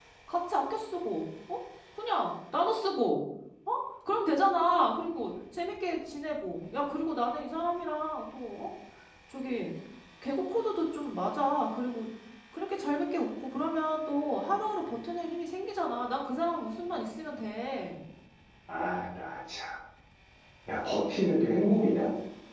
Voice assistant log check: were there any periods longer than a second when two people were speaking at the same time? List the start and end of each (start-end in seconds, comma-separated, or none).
none